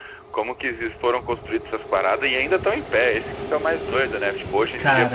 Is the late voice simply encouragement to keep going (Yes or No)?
Yes